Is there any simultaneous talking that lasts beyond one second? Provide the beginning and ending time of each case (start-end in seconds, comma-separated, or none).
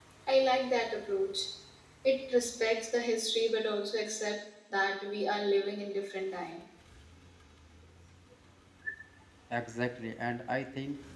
none